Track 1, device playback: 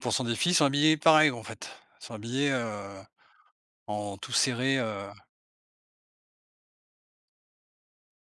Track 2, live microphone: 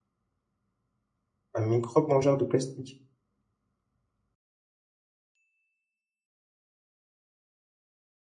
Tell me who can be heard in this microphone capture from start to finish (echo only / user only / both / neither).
user only